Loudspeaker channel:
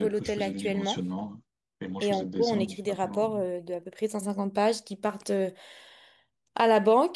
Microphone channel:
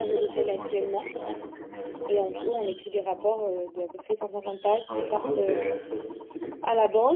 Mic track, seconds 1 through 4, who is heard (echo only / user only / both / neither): both